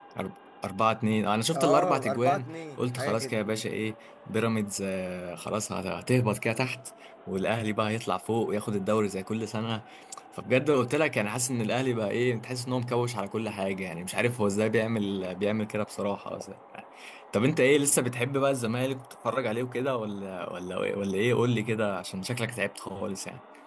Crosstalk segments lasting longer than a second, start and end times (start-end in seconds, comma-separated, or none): 1.5-3.4